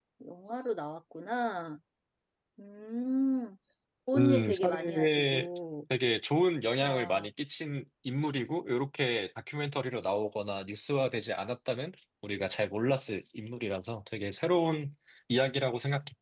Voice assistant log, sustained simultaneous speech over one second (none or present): present